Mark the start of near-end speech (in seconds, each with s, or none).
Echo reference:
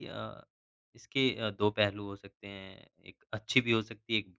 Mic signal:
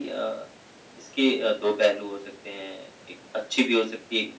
none